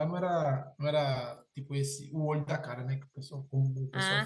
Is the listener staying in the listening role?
No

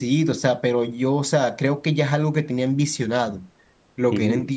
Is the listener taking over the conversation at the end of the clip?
No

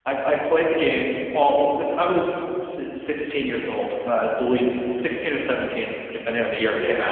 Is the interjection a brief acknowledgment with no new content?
No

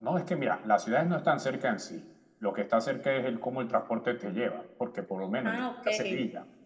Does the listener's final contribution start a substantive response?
No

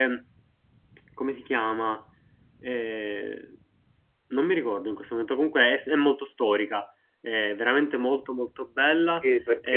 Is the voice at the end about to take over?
Yes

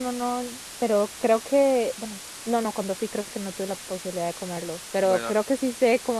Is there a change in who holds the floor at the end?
No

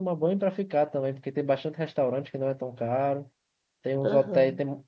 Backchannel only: Yes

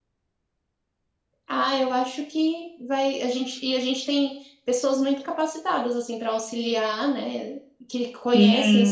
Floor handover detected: Yes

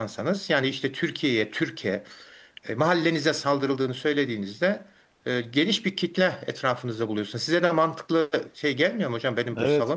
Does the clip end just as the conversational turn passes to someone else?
Yes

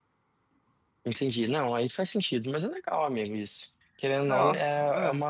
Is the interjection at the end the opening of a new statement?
No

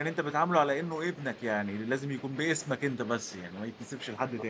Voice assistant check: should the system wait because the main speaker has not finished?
No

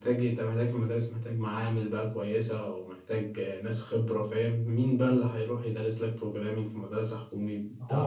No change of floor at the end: No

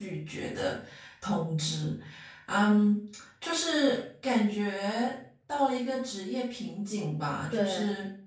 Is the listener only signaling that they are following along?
Yes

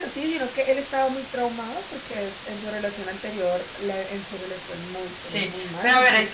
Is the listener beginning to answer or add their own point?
Yes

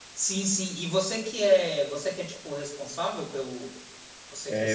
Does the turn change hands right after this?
Yes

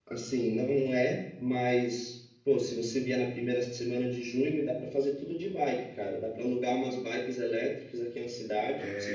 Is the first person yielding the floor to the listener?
Yes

